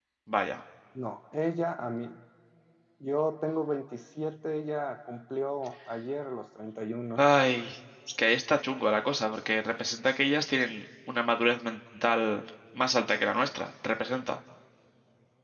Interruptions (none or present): none